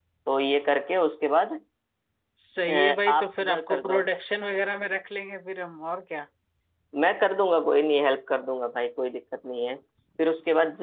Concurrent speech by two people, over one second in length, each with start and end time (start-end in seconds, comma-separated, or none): 2.7-4.0